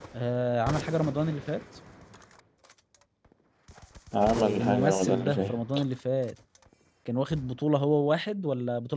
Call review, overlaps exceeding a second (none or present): present